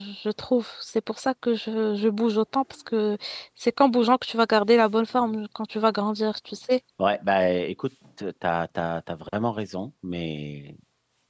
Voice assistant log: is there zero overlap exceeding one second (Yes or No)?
Yes